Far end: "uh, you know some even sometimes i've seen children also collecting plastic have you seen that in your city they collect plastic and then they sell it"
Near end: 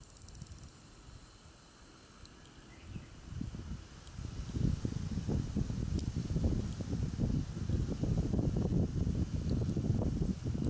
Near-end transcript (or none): none